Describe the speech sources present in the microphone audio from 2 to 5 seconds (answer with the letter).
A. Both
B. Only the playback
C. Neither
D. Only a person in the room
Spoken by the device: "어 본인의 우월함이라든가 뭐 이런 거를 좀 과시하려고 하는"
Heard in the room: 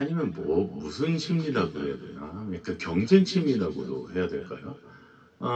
D